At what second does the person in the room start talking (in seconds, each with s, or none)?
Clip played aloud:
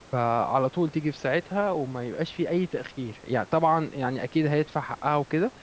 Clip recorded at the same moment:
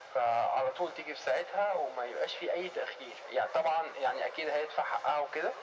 none